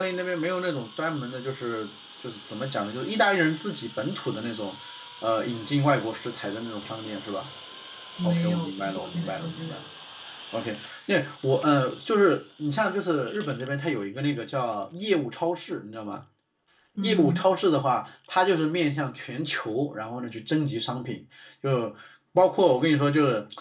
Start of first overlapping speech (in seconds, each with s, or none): 8.2 s